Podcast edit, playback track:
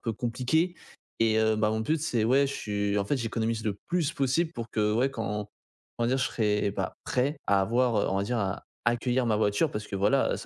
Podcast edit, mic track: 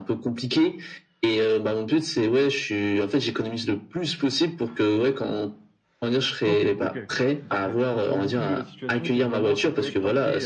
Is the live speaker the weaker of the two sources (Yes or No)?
Yes